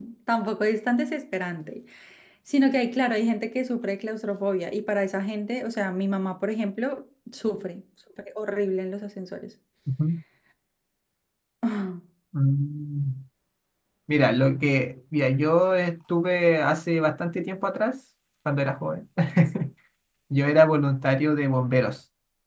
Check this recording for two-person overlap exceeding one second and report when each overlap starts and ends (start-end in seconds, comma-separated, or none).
none